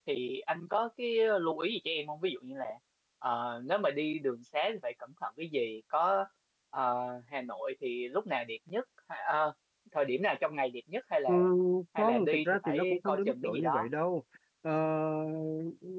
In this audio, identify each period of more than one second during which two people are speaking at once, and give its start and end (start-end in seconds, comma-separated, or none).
12.0-13.9